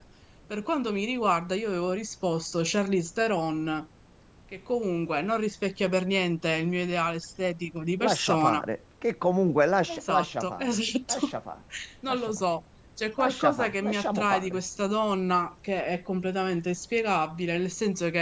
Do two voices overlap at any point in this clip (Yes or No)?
Yes